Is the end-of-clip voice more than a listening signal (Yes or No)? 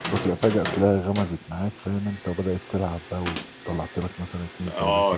Yes